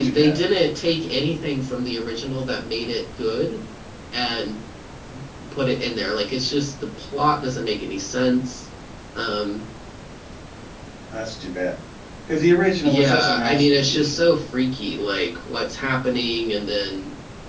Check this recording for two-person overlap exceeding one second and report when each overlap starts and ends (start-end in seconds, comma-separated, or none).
12.8-14.1